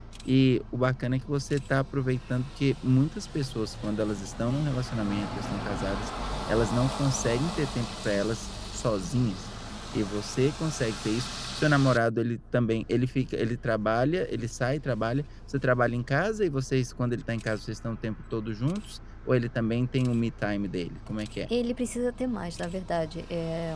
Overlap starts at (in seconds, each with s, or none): none